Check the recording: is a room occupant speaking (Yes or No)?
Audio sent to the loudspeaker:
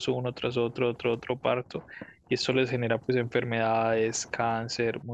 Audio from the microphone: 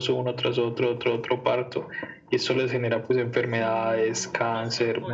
Yes